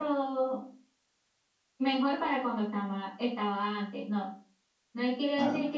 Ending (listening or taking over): listening